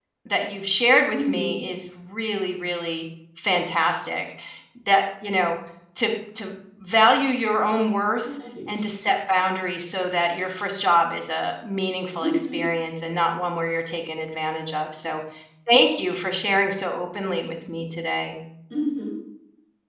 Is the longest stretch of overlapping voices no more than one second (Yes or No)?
Yes